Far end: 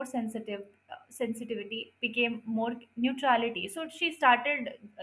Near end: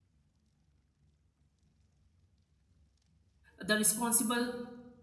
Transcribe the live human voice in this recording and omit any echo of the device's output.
the responsible

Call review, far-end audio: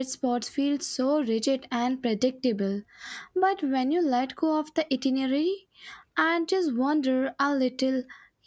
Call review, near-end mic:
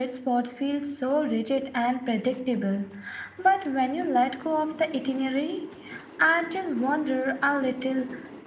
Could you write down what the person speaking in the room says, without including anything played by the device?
none

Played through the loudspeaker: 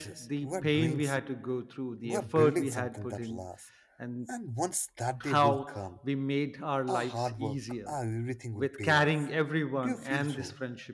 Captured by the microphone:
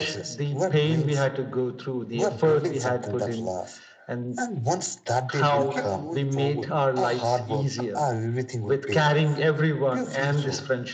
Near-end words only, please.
we kept moving forward.

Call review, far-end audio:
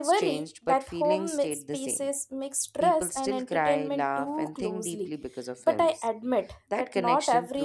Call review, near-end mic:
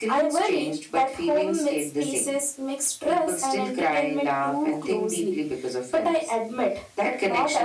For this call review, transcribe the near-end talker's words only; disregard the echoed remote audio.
none

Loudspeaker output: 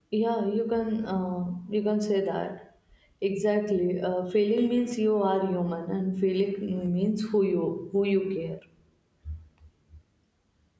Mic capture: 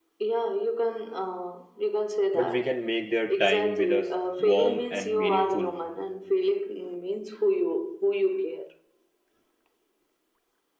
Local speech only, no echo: but we can make their time with us warm and meaningful.

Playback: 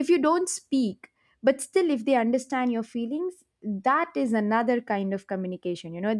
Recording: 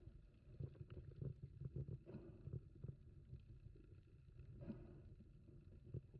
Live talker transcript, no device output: none

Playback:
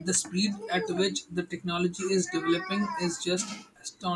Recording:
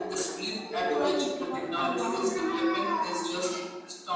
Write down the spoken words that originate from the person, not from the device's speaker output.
you are keeping an eye on?

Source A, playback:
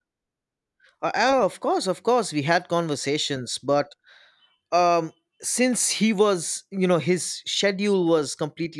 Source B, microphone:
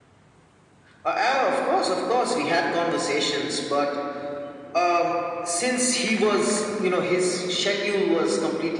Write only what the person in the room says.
none

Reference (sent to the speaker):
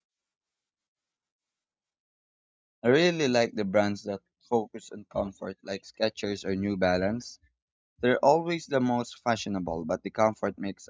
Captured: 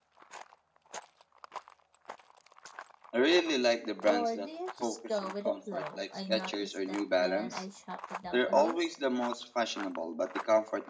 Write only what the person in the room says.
Or do you just go with the flow? I noticed that when I shop without a list,

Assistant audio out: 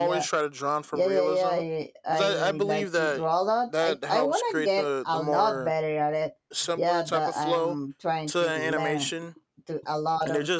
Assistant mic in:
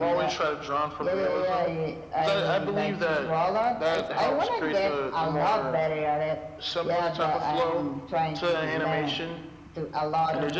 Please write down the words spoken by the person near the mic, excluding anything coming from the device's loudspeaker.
none

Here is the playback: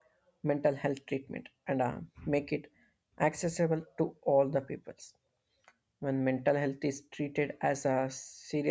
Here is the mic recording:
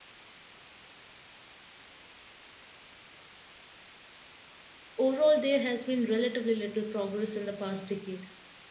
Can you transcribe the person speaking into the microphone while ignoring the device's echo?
overall, there has been relatively little progress in the past decade.

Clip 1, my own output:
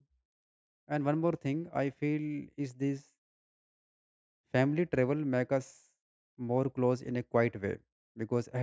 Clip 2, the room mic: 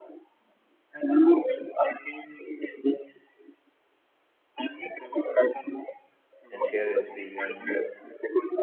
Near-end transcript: and share experiences

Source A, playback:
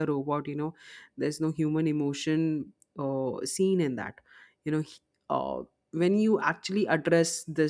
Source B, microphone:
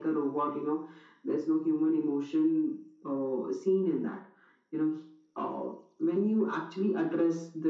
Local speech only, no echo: none

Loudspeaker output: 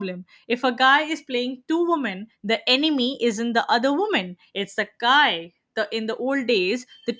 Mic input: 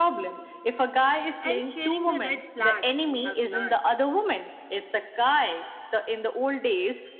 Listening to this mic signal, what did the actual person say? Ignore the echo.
and sharing the red flags we have learned.

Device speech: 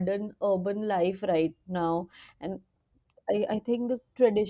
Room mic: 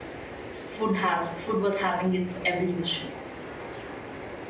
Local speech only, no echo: food have food was having its evolution

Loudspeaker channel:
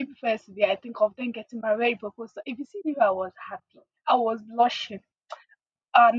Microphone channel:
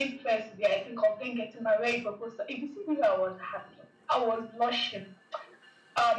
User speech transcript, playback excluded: none

